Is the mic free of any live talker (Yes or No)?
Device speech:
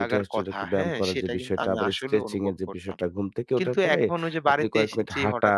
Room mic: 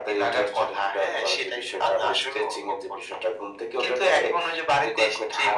Yes